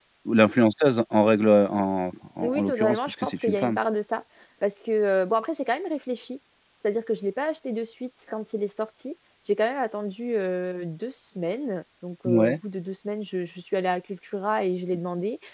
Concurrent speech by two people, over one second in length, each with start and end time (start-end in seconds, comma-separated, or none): 2.4-3.8